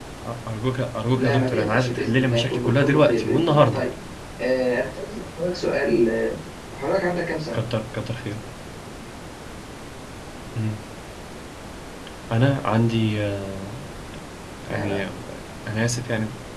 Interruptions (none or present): present